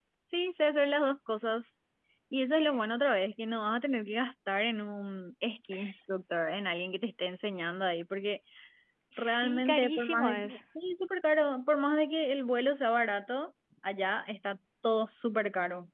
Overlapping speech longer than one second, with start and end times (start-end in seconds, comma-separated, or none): 9.2-10.6